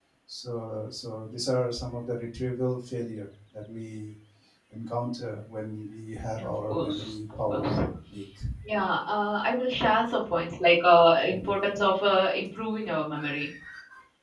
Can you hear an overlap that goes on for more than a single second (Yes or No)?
Yes